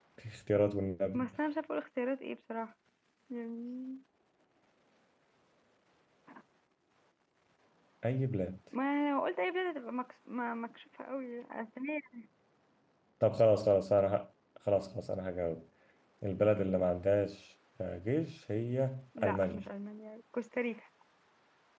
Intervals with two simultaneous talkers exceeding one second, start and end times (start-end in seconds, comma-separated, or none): none